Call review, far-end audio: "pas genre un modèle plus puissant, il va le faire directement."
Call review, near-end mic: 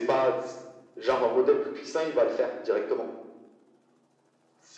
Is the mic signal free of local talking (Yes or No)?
Yes